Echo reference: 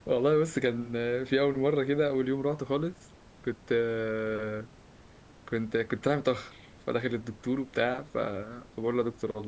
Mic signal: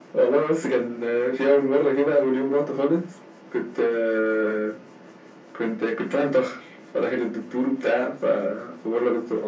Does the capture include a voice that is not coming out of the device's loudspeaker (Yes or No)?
No